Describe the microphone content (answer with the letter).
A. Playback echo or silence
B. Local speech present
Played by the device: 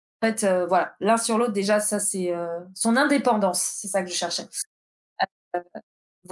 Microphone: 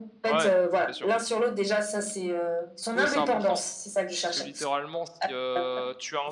B